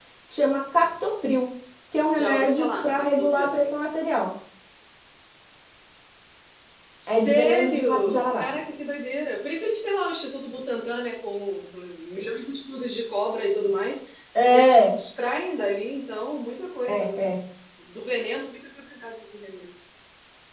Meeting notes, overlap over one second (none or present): present